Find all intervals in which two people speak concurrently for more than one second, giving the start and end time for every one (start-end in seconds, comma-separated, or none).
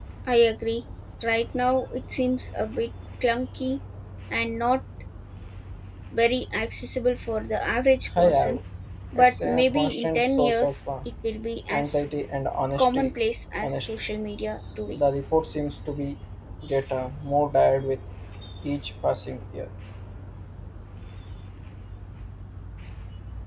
9.2-10.8